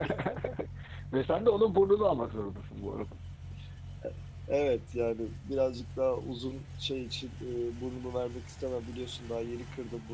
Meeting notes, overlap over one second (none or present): none